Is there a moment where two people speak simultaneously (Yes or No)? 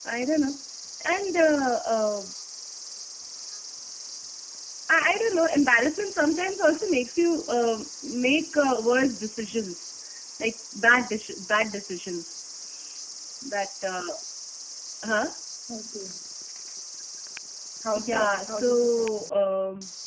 Yes